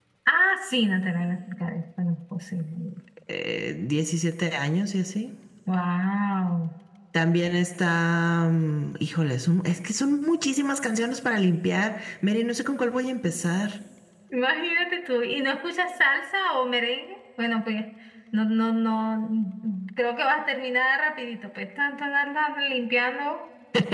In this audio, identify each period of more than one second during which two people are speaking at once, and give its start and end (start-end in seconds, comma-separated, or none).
none